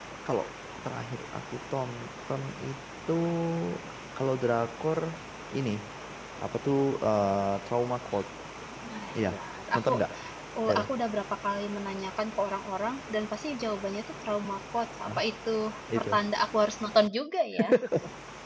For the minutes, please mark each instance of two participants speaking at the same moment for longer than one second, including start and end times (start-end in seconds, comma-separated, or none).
none